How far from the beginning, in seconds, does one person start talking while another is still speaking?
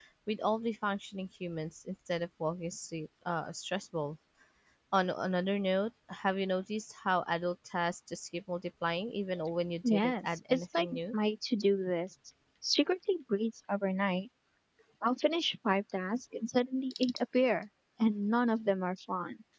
9.8 s

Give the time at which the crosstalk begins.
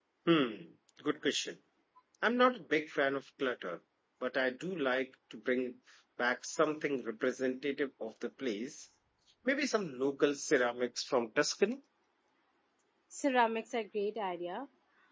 none

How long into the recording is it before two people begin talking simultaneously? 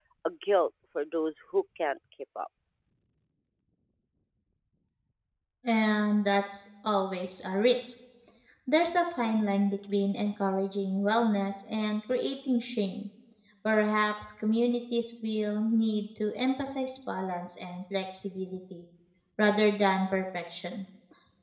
none

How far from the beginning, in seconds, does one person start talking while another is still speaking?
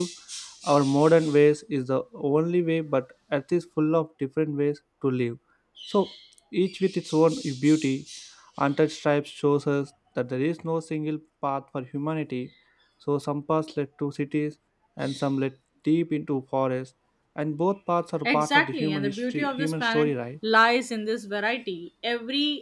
18.2 s

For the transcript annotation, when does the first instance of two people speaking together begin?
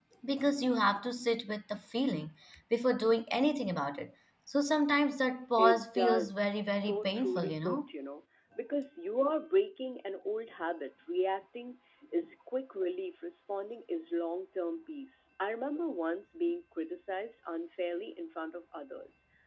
5.6 s

